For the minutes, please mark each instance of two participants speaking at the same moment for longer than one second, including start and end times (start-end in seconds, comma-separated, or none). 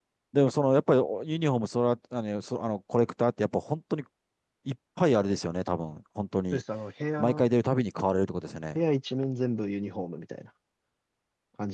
none